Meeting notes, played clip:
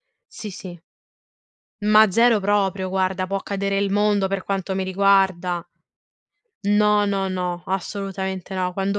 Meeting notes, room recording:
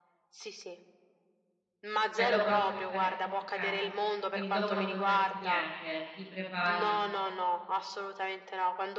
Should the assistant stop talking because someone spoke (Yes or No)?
Yes